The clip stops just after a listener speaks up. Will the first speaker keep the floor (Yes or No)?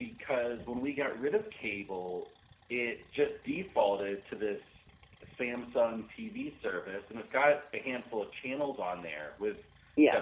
Yes